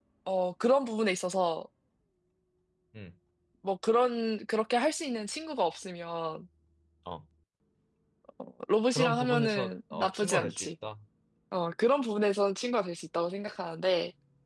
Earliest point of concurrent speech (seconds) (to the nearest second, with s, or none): 9 s